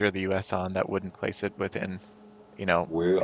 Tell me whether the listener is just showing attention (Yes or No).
Yes